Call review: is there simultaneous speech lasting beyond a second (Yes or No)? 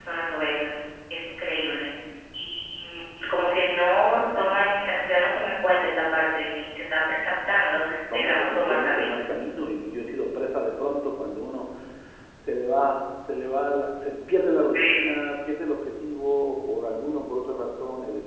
Yes